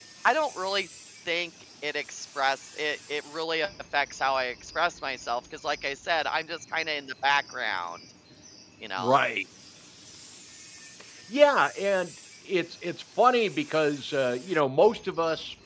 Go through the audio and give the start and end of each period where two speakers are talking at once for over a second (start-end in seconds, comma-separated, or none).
none